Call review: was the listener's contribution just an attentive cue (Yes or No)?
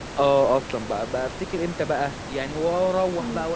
Yes